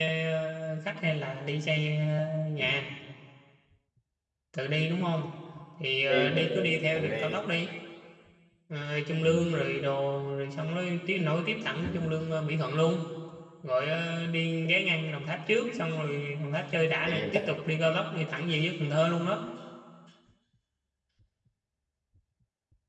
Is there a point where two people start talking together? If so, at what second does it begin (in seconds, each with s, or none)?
6.1 s